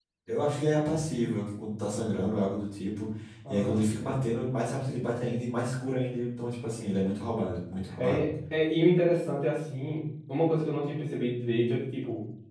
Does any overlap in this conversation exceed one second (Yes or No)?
No